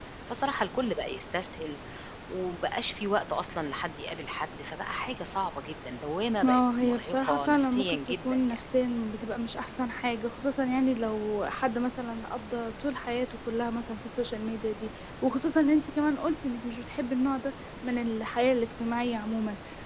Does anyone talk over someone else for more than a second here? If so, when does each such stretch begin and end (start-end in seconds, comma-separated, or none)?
6.4-8.7